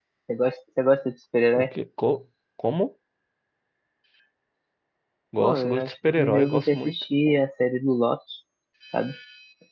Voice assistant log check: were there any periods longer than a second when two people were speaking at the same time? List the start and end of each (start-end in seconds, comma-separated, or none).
5.4-7.0